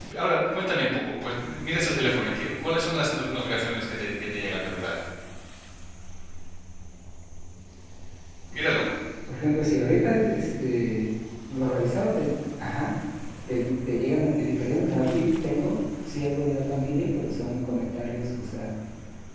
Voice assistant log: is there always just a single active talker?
Yes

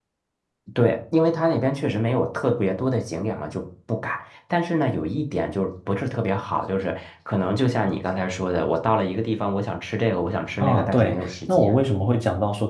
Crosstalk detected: Yes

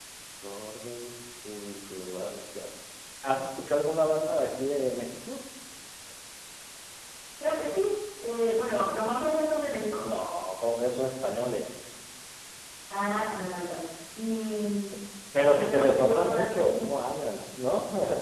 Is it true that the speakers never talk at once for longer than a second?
No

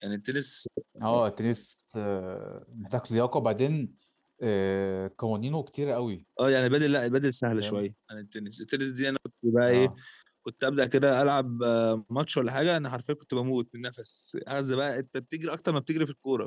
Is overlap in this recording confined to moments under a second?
Yes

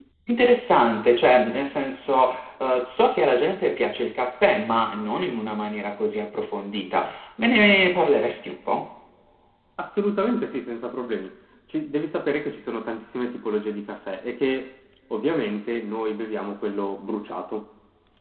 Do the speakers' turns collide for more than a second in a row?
No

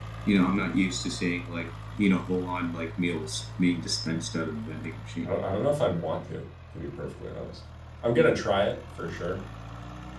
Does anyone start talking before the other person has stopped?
No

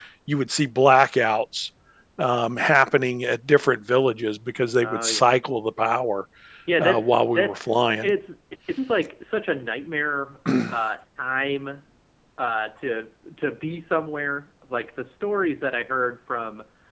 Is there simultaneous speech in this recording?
Yes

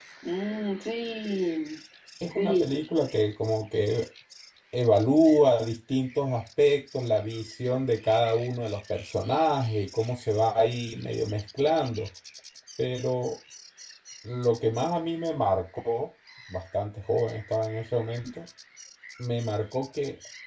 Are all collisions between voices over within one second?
Yes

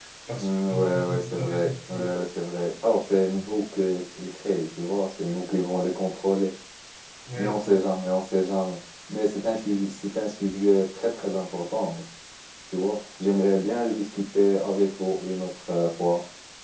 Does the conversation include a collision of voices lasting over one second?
Yes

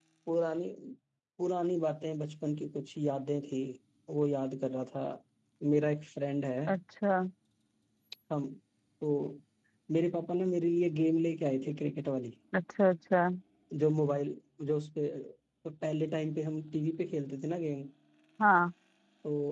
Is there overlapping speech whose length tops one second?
No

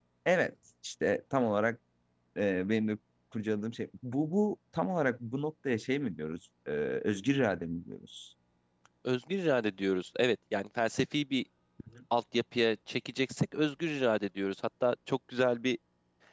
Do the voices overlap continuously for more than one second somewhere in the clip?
No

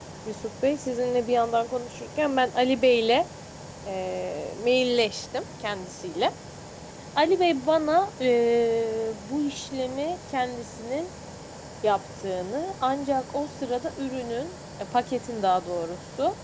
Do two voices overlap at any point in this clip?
No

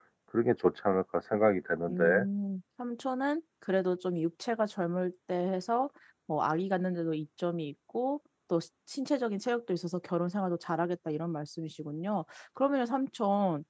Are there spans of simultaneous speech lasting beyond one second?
No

